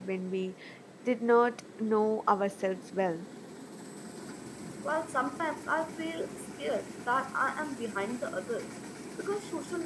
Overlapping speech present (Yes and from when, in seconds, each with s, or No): No